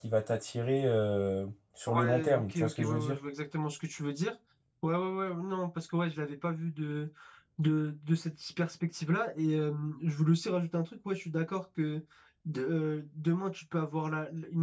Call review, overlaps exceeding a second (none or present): present